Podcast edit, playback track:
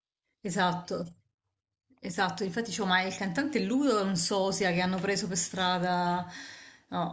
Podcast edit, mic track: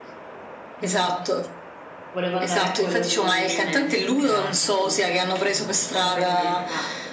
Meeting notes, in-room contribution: present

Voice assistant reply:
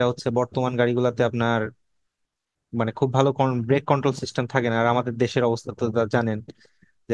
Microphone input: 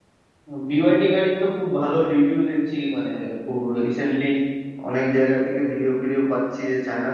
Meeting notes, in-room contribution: present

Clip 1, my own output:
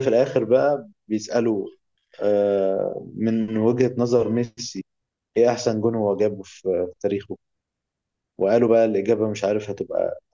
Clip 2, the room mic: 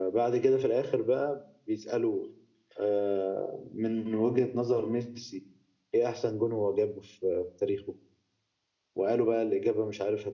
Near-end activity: none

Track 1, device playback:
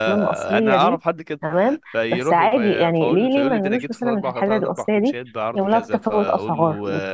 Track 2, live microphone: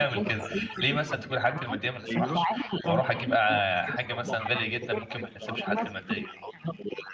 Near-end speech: present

